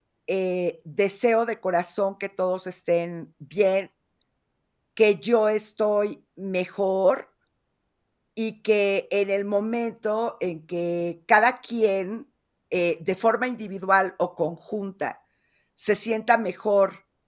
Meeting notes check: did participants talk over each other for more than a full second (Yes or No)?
No